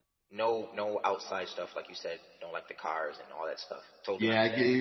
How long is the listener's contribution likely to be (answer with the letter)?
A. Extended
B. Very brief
A